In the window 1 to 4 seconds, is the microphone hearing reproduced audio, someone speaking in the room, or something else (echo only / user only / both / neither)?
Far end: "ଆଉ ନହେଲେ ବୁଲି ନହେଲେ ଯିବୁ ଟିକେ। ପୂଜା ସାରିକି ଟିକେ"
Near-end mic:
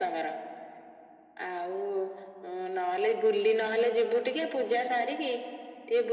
echo only